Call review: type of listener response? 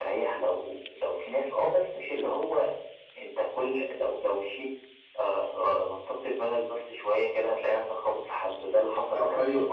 taking over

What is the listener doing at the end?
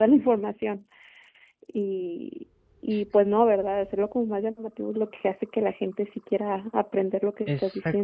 taking over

